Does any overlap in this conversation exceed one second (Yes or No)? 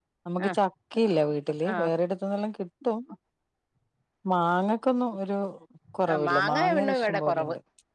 Yes